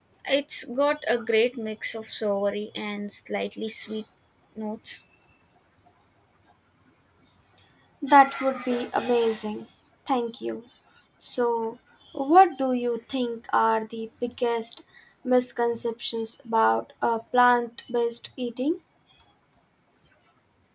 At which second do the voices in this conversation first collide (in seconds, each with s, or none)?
none